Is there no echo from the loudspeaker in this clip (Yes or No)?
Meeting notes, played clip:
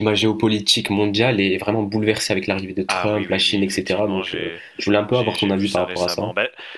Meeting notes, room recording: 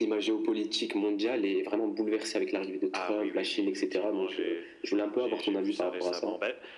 No